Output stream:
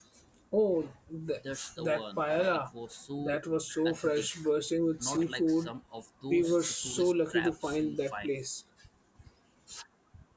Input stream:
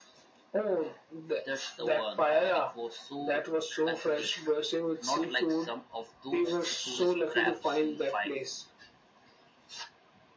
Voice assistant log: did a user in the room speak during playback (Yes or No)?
No